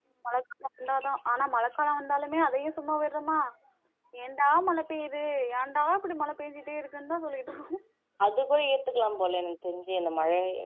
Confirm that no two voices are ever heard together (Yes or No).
Yes